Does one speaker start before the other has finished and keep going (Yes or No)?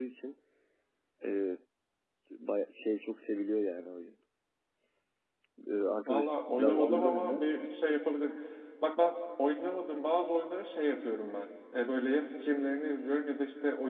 Yes